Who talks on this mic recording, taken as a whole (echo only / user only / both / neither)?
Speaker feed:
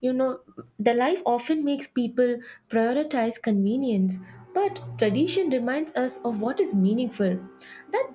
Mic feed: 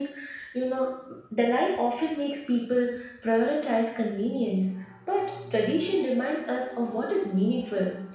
echo only